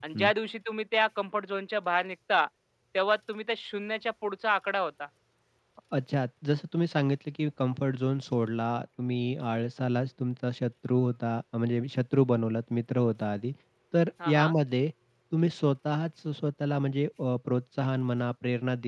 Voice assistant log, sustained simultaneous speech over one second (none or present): none